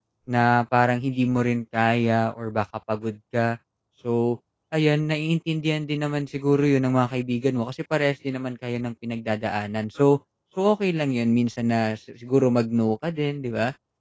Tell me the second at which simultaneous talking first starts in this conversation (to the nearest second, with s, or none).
none